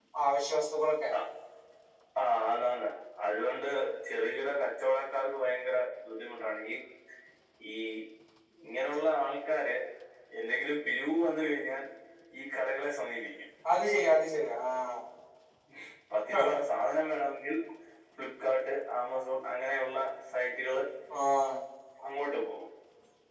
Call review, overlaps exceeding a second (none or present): none